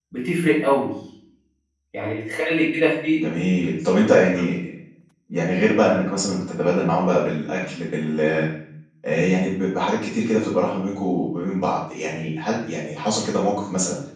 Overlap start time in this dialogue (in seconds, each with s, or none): none